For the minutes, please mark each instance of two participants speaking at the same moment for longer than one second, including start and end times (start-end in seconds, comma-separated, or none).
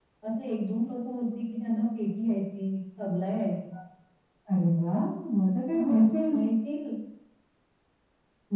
none